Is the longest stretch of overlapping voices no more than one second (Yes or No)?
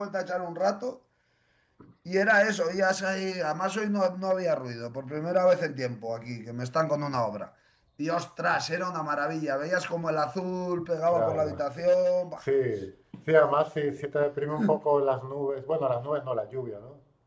Yes